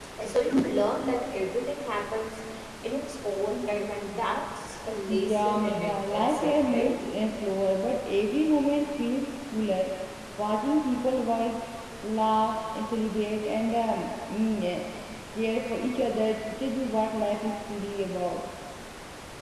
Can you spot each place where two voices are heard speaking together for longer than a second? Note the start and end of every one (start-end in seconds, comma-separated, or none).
5.1-7.0